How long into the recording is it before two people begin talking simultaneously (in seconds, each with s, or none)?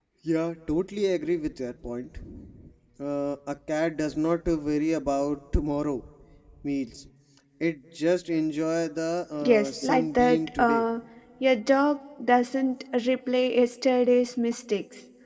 9.4 s